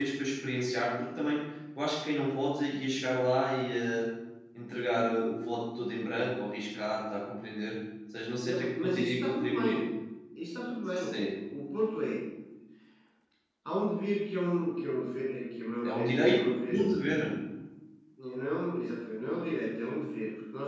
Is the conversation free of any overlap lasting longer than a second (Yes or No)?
No